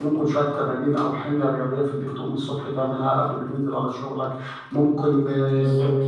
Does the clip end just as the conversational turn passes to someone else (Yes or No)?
No